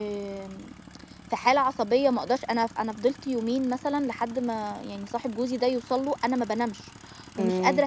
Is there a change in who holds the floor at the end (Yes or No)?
No